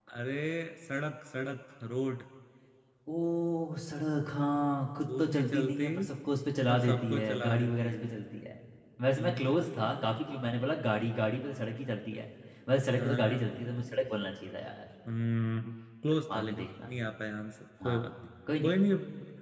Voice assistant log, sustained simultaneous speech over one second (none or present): present